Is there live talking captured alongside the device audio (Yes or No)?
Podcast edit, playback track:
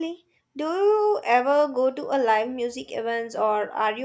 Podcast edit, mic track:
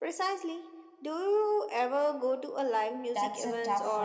Yes